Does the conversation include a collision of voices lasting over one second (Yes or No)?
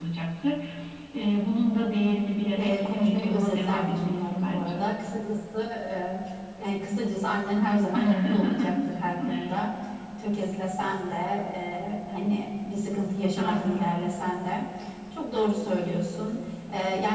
Yes